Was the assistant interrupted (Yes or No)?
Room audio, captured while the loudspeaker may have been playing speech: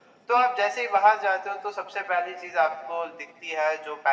No